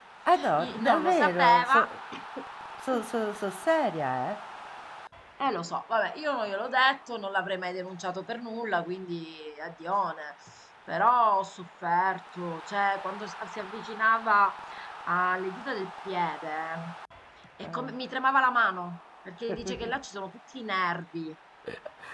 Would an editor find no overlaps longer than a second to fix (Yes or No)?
No